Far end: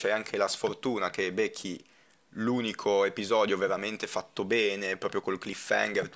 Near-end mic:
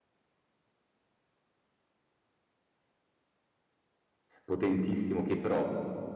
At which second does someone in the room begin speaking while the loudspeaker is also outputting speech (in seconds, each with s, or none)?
4.4 s